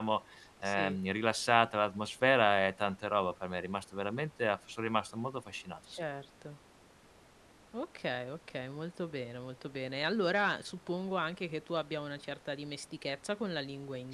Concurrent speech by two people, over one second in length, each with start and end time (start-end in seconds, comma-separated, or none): none